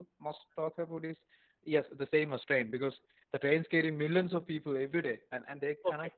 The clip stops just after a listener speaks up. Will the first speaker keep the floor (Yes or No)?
Yes